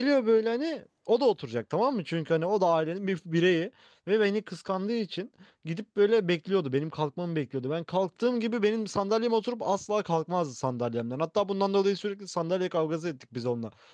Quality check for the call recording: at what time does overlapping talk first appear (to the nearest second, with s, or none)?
none